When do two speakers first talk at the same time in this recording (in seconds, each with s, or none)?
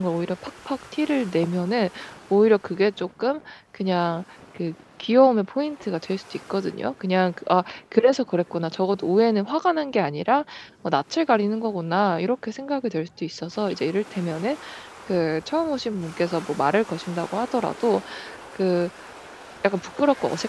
none